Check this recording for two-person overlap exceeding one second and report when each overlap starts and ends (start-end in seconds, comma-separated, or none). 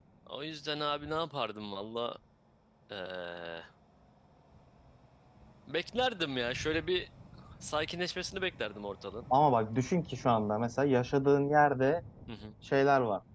none